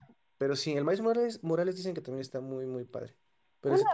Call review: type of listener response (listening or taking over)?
taking over